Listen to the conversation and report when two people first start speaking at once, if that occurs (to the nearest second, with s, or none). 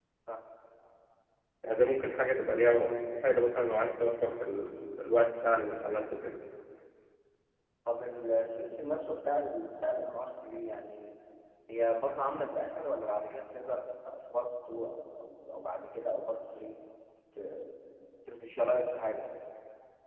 none